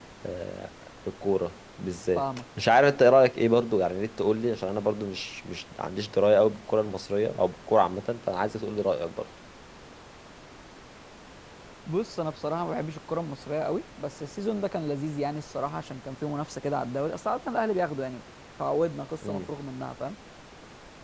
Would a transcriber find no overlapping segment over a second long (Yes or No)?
Yes